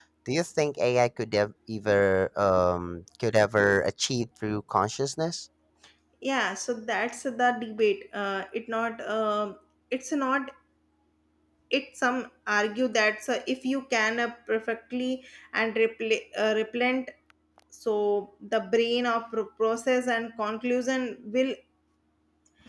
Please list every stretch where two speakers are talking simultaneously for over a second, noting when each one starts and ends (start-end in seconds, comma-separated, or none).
none